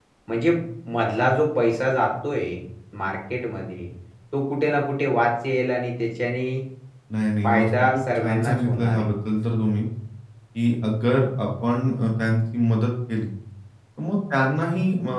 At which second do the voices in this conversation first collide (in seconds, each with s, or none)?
7.4 s